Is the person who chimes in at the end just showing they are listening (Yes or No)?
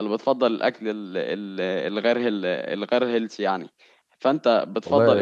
No